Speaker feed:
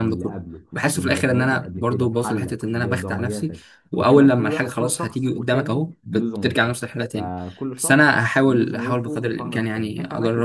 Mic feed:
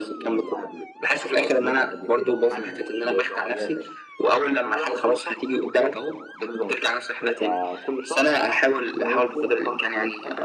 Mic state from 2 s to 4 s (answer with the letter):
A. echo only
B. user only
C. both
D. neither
A